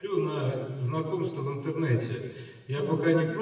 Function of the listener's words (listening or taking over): listening